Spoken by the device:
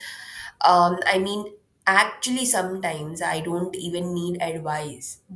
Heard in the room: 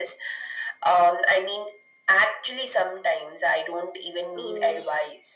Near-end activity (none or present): present